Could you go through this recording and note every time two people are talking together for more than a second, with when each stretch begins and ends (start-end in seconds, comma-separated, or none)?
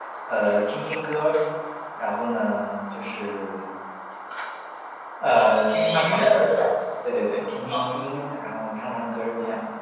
5.3-6.5